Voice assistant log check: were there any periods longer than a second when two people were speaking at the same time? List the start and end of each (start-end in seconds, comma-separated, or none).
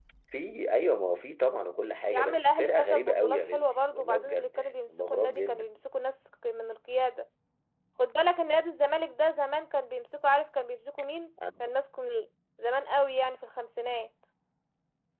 2.1-5.7